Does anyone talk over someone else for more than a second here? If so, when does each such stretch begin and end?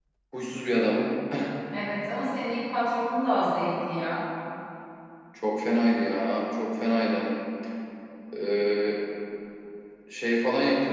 none

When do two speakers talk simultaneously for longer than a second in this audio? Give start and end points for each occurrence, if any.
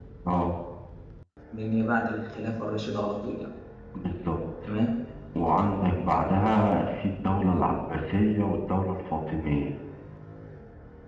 none

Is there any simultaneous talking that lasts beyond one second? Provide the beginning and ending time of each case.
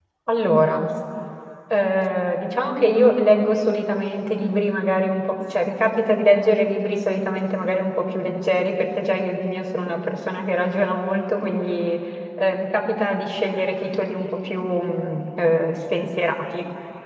none

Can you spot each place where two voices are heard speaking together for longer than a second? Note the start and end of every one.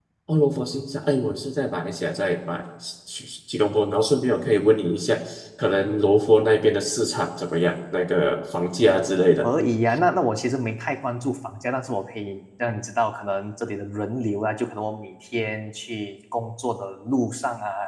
none

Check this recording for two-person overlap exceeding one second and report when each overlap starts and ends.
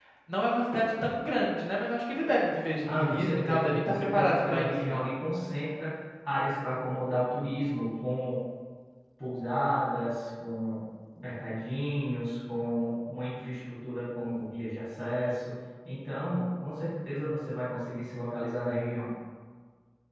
2.9-5.0

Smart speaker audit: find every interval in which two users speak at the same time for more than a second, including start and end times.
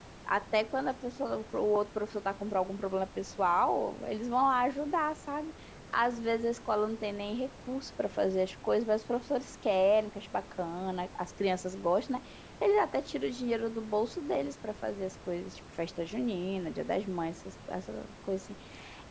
none

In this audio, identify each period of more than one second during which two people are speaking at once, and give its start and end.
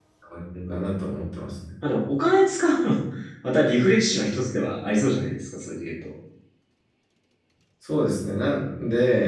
none

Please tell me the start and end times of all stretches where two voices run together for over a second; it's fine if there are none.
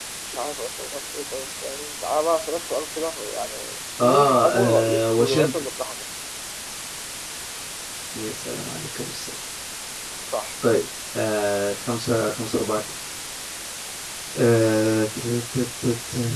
4.0-5.7

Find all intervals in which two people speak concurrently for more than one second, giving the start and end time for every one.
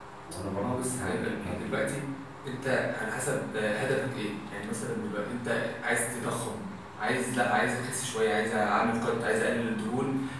0.6-1.8

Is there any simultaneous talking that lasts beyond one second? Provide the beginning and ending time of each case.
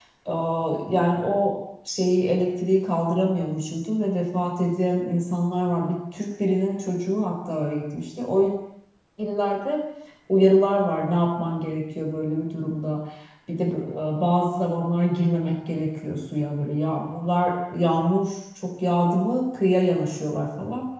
none

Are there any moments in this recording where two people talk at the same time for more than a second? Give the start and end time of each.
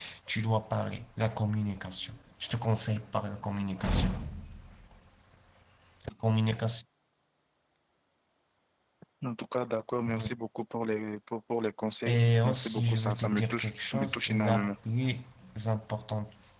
12.1-14.7

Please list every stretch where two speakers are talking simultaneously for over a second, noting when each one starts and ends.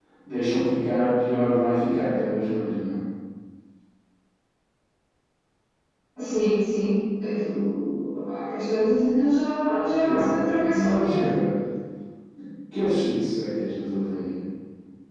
10.0-11.2

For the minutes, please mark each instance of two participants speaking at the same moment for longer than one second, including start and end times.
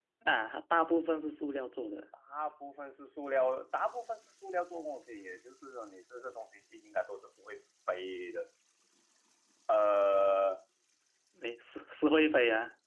none

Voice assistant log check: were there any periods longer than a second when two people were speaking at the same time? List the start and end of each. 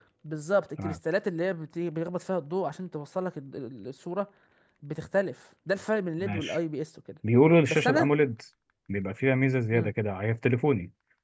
none

